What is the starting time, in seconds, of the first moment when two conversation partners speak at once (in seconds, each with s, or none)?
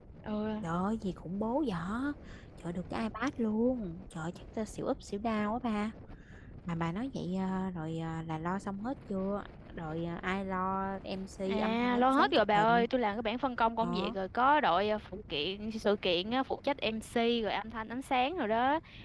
11.5 s